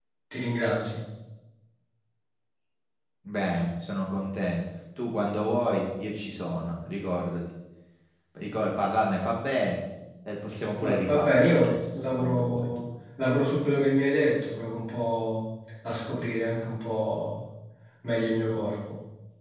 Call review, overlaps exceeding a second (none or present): present